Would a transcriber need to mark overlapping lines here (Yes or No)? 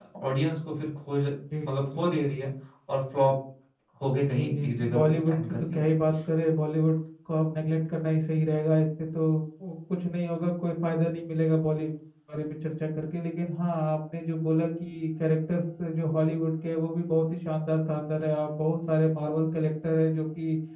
Yes